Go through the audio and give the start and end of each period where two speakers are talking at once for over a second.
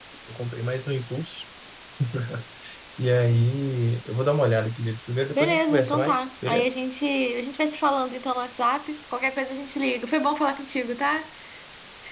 5.4-6.7

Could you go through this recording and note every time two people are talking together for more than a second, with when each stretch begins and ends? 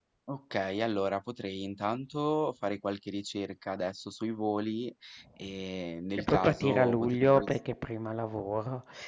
6.2-7.4

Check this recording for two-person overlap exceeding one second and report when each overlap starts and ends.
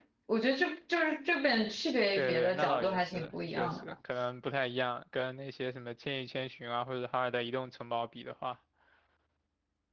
2.2-3.9

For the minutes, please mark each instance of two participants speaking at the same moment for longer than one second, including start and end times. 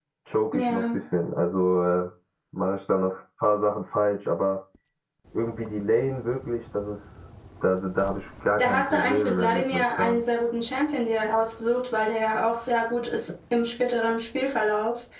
8.6-10.2

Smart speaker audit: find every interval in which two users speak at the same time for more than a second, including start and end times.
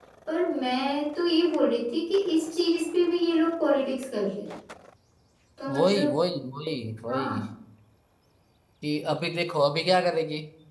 none

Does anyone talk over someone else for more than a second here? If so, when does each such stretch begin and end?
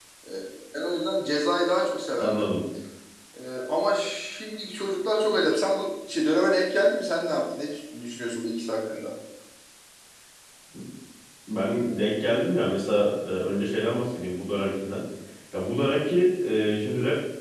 none

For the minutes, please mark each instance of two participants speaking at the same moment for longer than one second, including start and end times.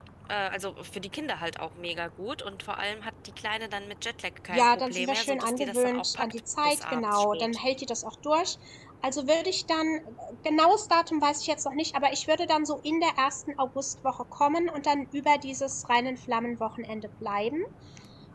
4.5-7.6

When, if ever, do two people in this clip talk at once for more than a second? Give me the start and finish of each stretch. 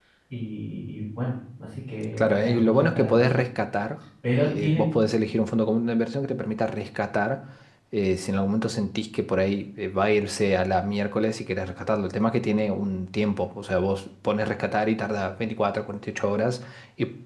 2.2-3.4

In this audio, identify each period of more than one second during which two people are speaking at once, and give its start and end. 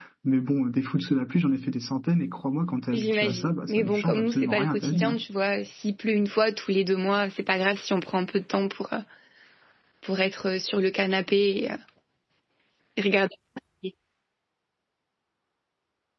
2.9-5.2

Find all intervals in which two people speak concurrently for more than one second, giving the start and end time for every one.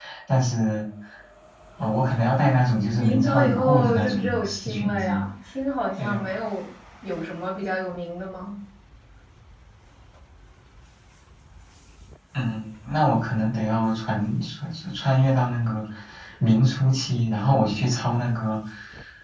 3.0-5.2

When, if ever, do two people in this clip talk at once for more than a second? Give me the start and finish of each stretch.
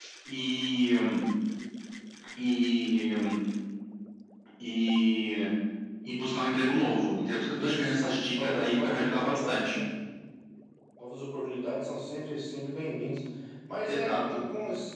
7.6-9.8

